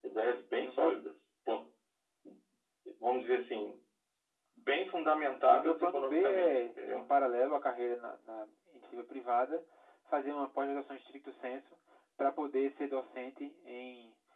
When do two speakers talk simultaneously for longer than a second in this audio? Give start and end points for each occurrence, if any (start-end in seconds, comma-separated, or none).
5.3-7.1